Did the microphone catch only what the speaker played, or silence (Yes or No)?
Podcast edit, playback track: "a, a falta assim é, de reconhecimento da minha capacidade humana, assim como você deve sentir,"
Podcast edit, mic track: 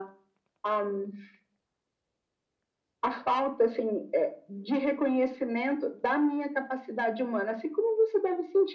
Yes